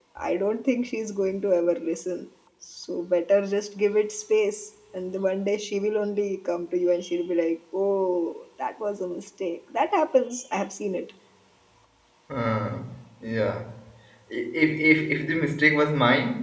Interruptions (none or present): none